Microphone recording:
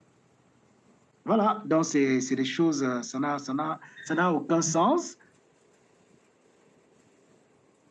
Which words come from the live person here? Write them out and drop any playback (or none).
Voilà, donc c'est des choses, euh, ça n'a ça n'a- ça n'a aucun sens.